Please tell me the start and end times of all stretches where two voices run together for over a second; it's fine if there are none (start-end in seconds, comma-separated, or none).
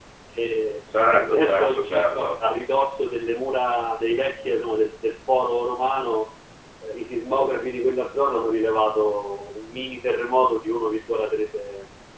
1.1-2.4